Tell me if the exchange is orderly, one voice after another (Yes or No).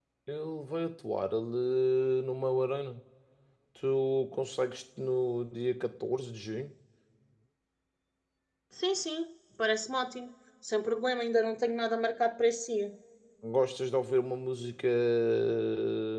Yes